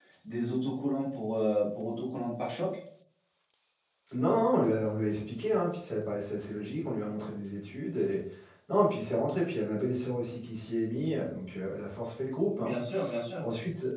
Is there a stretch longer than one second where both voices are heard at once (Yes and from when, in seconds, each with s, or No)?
No